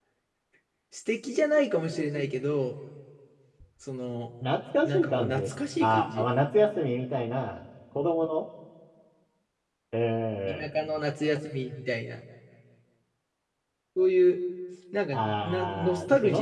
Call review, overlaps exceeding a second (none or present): present